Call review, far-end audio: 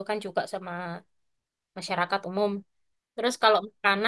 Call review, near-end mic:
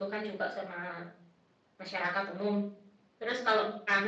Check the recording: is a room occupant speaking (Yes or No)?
No